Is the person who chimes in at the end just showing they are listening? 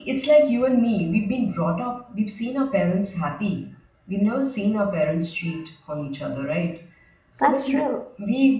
Yes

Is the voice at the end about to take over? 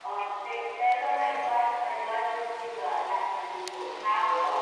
No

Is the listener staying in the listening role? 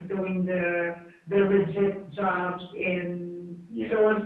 Yes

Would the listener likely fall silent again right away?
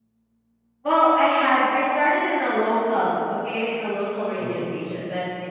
Yes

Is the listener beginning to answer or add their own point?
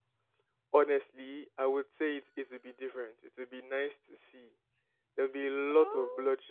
No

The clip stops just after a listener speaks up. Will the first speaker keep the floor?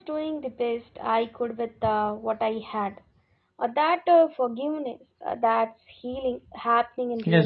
No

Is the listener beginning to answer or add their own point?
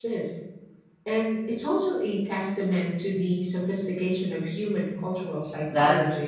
Yes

